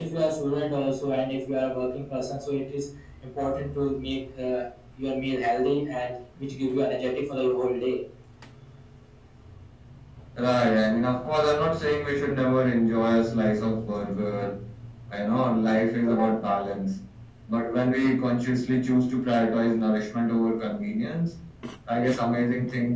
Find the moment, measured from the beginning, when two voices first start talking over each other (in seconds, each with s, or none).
none